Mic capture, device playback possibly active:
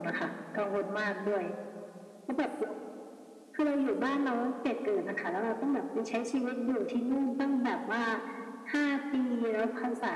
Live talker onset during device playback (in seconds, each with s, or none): none